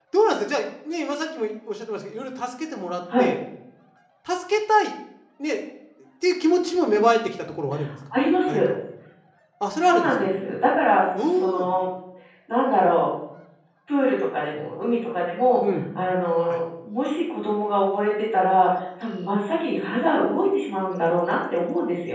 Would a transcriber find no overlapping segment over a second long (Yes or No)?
Yes